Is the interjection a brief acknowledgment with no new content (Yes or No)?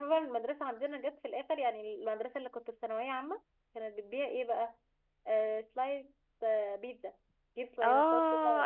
No